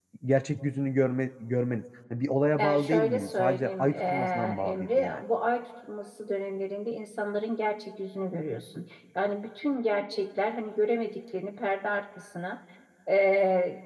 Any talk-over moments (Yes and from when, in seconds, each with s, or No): Yes, from 2.6 s